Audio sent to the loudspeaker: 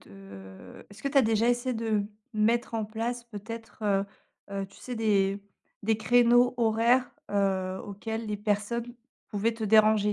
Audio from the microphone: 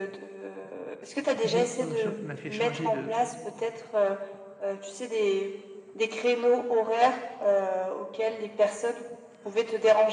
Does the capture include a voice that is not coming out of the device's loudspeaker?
Yes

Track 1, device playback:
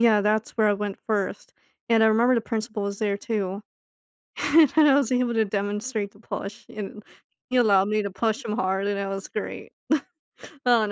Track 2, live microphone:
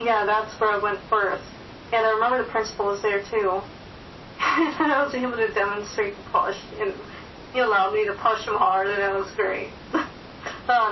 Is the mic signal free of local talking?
Yes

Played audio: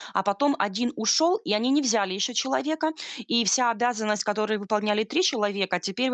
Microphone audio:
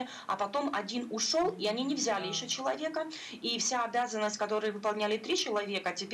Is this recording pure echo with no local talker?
No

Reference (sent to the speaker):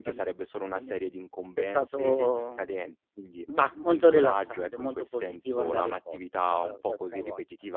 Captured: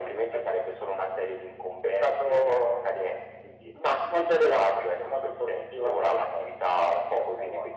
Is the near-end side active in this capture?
No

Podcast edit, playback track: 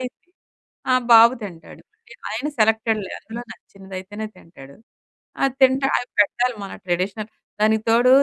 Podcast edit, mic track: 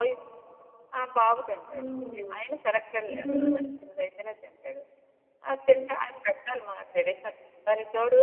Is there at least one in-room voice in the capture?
Yes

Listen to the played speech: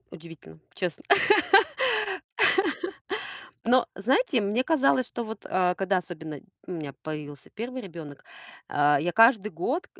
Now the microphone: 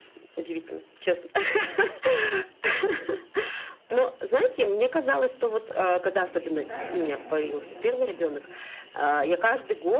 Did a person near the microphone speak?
Yes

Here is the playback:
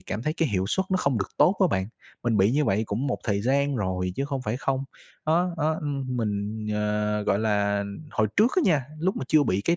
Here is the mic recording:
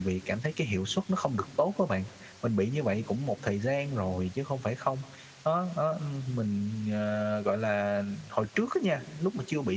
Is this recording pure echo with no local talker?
Yes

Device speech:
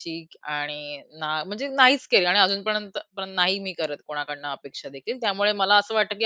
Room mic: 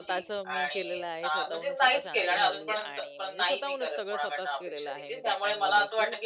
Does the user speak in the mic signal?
Yes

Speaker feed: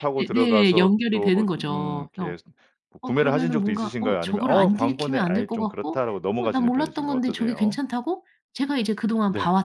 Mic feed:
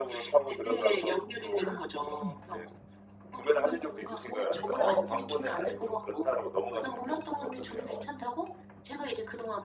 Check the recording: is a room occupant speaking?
Yes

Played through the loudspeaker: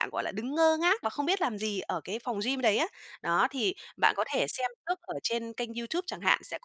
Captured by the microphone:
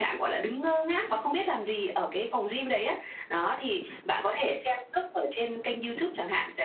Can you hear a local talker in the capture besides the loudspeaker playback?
No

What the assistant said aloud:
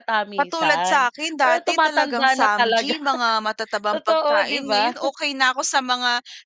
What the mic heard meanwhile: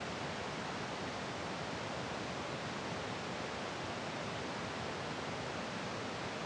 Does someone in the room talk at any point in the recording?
No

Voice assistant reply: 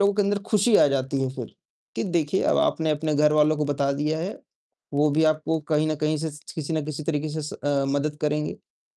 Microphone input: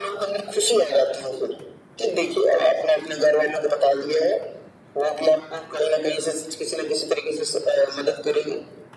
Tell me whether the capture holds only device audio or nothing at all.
Yes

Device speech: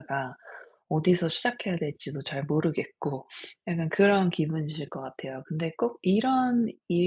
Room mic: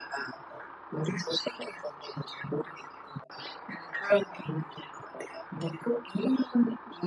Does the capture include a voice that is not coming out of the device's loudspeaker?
No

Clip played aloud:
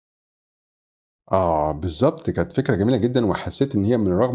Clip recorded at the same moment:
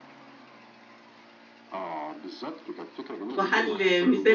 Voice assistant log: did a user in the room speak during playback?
Yes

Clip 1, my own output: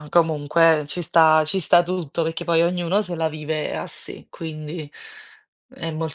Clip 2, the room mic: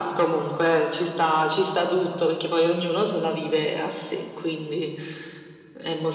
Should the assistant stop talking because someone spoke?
No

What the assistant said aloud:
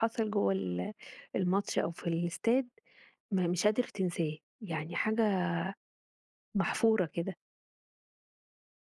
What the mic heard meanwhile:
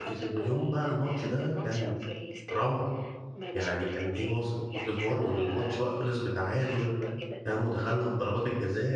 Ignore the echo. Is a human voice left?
Yes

